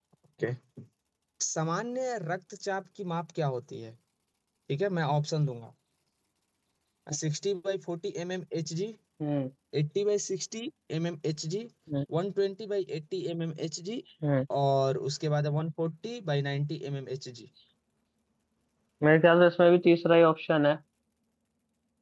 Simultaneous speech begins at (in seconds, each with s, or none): none